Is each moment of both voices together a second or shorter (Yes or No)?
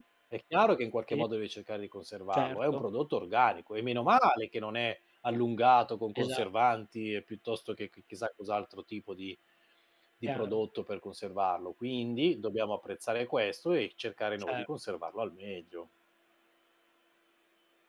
Yes